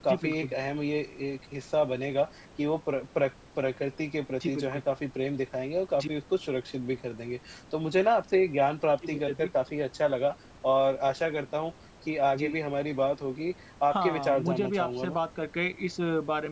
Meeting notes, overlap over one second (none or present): present